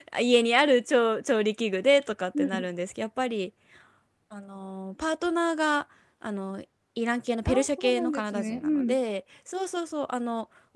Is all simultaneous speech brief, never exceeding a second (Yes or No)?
No